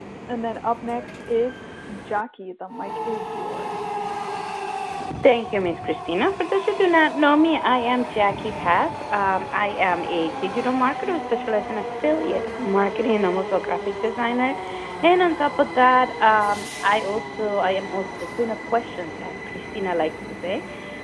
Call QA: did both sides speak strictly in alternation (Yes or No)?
Yes